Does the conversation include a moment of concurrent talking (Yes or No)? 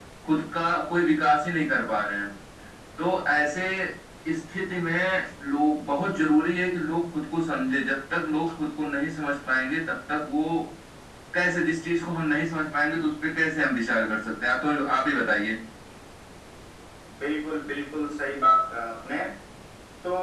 No